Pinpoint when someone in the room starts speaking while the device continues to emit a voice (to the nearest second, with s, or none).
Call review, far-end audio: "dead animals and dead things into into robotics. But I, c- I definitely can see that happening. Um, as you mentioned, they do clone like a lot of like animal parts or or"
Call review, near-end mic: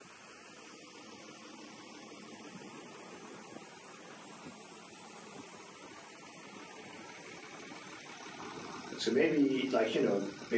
9 s